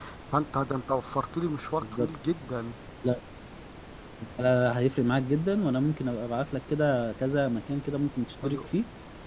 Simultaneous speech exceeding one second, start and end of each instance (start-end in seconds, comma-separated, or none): none